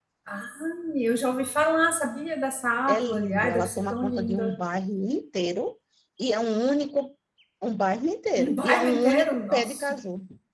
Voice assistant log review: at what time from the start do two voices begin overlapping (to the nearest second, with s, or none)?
3 s